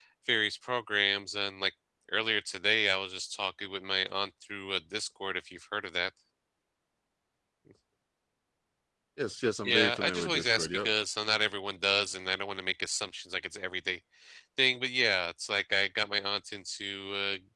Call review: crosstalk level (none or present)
present